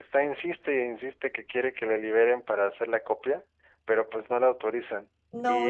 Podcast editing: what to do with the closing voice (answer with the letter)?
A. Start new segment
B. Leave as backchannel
A